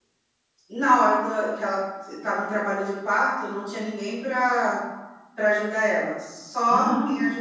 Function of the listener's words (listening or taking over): listening